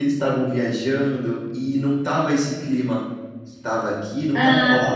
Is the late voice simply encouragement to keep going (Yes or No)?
No